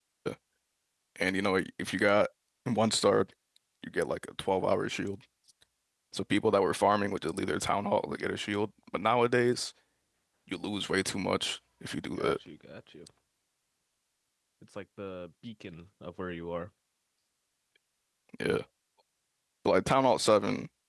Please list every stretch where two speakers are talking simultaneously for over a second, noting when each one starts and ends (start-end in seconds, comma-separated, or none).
none